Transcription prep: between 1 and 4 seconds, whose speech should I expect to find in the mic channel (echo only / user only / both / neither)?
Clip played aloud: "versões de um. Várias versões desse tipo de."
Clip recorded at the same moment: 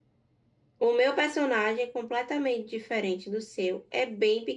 user only